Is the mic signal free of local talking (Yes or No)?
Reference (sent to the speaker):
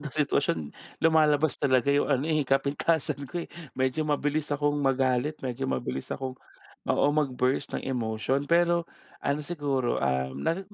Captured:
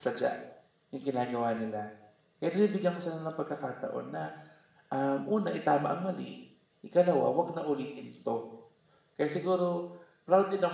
No